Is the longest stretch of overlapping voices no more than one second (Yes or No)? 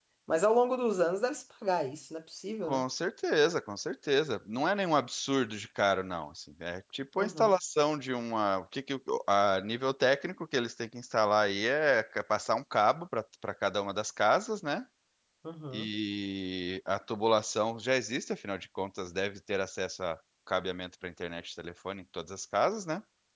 Yes